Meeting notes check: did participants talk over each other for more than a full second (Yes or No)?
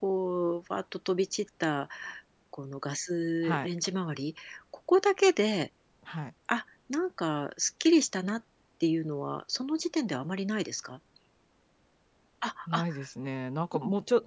No